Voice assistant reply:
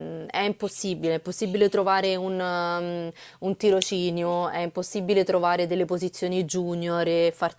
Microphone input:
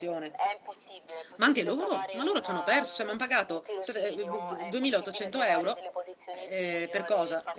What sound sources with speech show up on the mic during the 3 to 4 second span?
both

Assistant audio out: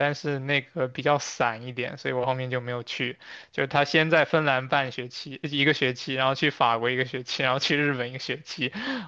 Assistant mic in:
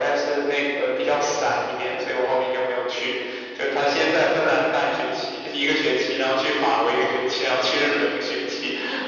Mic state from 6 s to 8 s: echo only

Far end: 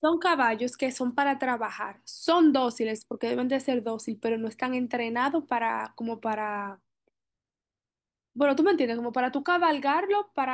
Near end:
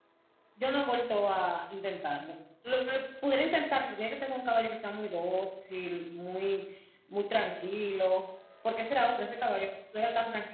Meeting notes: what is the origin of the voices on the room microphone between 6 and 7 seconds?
user only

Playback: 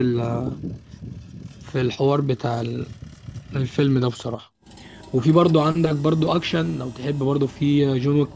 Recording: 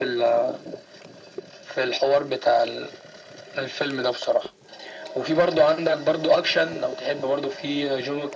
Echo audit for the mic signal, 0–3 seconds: echo only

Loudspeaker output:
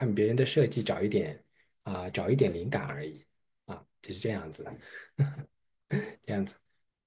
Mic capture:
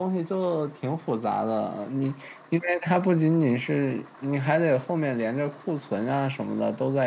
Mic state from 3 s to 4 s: user only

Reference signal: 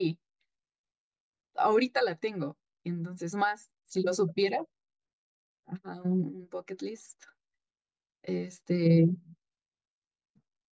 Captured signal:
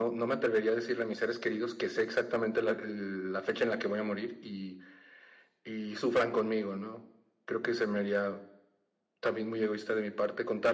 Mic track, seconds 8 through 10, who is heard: user only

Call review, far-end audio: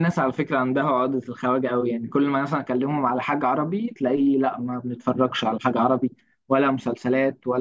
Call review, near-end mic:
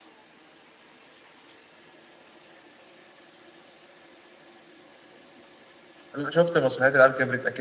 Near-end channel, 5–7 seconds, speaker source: user only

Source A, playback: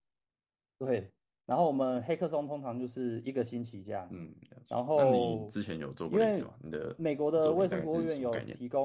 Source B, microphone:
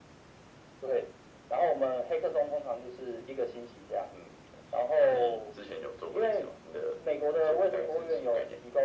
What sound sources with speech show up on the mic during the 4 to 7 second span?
echo only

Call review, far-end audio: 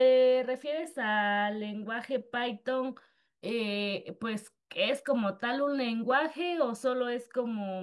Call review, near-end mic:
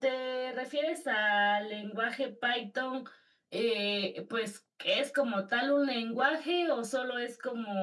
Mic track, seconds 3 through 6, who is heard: echo only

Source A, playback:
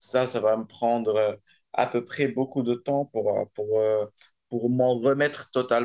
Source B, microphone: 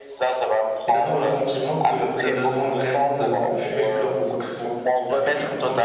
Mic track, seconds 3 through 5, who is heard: both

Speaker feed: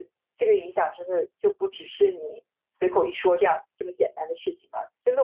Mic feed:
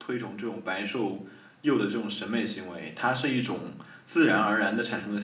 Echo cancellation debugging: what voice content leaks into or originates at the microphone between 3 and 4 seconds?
user only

